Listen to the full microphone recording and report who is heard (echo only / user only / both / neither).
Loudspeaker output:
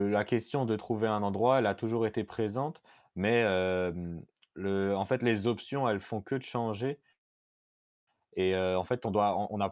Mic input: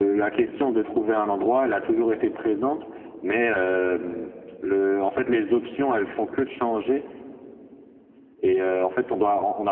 echo only